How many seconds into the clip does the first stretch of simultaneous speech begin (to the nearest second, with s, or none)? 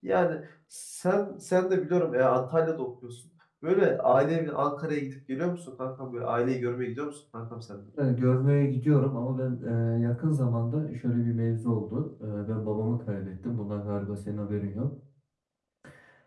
none